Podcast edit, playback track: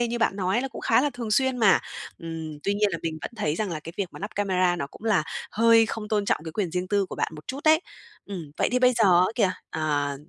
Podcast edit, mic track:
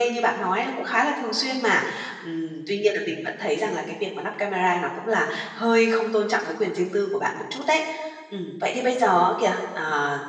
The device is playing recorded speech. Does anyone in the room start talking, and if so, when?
none

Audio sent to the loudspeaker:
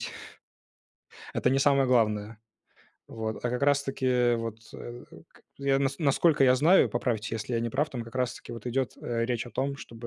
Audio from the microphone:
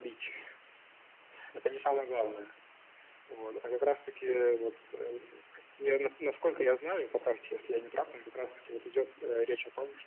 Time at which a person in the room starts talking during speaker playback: none

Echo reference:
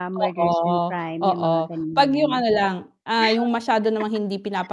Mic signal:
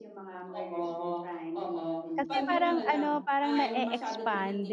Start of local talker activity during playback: 2 s

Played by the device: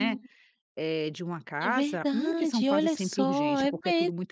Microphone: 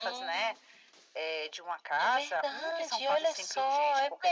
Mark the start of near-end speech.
none

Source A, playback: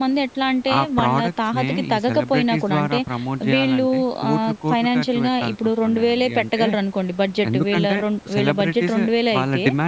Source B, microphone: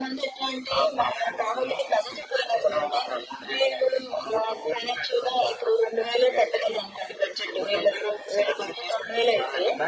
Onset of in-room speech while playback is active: none

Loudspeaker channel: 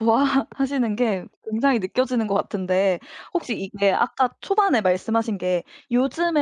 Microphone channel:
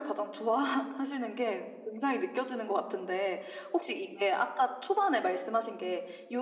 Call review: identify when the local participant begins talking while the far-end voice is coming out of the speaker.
none

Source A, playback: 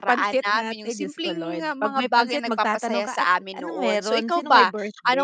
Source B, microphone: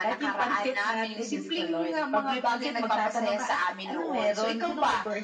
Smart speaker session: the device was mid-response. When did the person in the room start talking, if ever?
none

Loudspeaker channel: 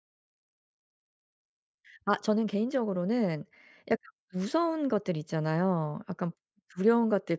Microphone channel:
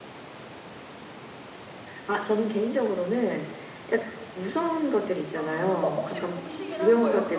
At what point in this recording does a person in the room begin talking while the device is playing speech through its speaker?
5 s

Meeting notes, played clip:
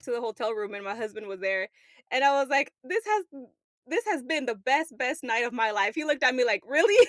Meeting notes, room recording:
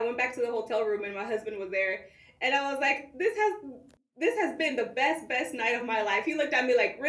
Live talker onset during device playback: none

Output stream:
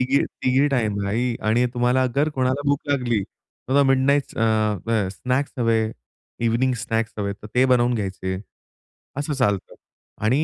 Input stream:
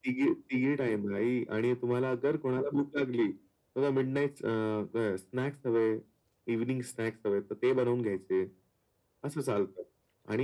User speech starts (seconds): none

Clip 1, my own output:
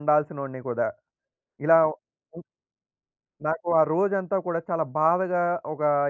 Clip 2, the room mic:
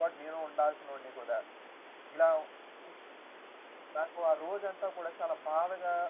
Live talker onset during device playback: none

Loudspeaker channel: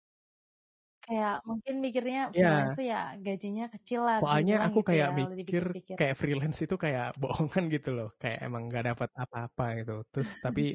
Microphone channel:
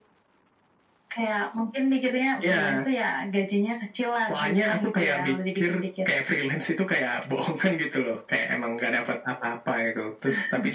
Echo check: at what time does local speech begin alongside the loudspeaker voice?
none

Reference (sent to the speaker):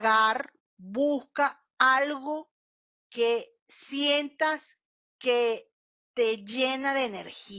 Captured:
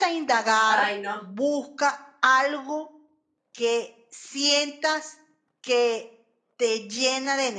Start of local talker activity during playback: 1 s

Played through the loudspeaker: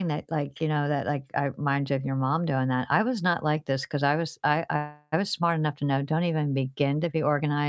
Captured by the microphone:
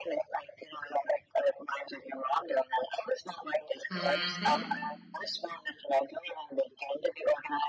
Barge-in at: 4 s

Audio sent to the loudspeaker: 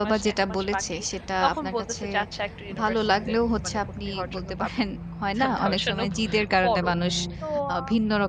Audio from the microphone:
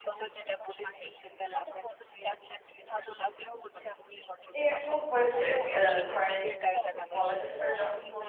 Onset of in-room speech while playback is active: 5 s

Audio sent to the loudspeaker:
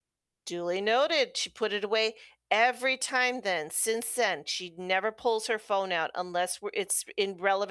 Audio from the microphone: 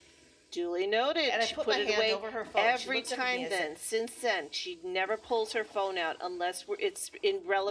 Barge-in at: 1 s

